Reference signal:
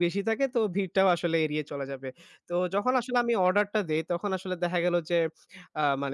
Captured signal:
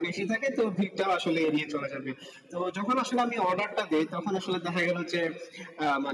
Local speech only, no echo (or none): none